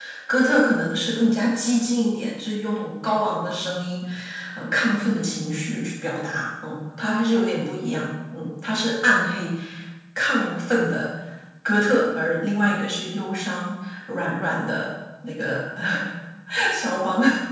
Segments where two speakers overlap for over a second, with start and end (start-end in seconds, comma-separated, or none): none